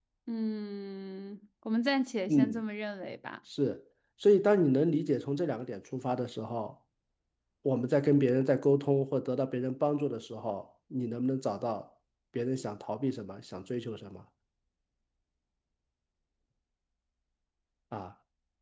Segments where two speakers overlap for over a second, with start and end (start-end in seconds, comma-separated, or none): none